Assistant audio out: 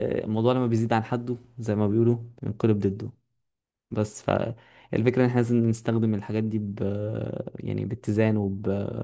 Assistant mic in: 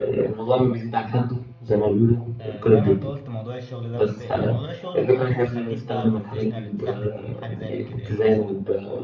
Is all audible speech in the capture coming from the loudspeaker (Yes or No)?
No